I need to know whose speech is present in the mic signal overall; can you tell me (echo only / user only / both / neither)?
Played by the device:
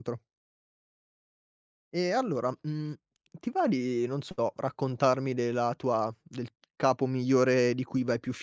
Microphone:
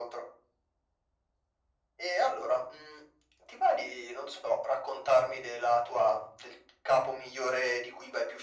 echo only